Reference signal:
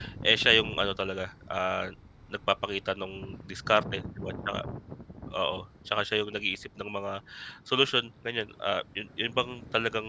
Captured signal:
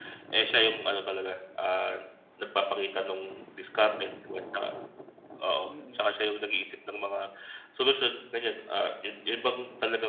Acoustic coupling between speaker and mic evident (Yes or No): Yes